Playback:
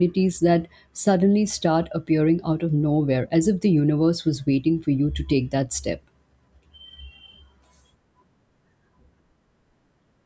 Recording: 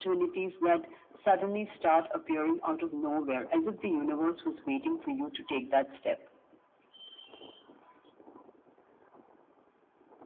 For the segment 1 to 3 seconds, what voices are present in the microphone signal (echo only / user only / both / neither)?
echo only